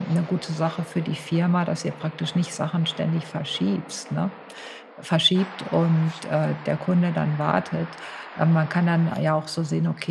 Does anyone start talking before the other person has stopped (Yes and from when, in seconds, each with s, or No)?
No